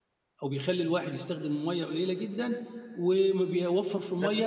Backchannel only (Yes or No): Yes